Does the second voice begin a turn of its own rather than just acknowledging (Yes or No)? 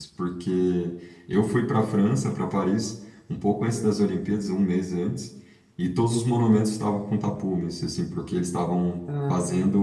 No